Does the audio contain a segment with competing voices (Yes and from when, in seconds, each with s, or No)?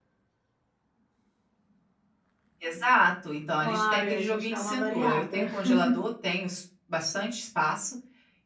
Yes, from 3.6 s